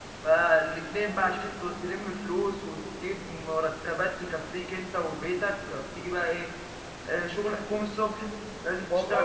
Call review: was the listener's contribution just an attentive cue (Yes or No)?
Yes